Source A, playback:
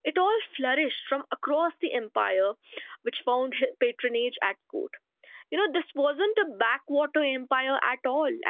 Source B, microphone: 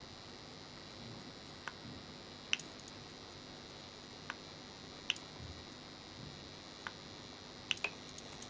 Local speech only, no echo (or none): none